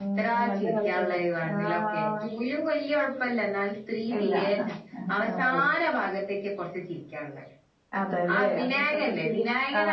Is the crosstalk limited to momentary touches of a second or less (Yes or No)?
No